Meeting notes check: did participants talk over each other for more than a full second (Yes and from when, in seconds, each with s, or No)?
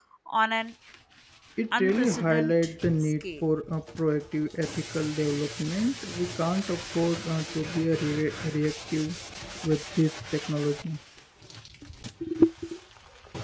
Yes, from 1.8 s